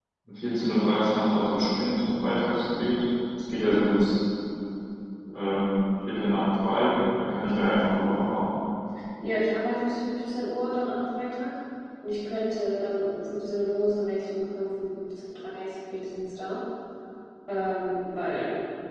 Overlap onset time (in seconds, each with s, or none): none